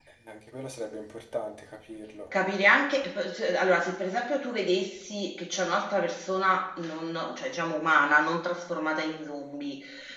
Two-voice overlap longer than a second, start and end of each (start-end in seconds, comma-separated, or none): none